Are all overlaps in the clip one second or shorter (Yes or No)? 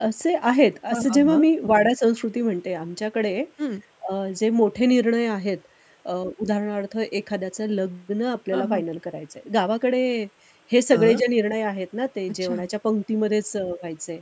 Yes